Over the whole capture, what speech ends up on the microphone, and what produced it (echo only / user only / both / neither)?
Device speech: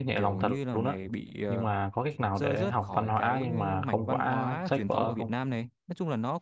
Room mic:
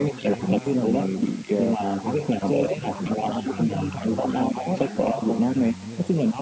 both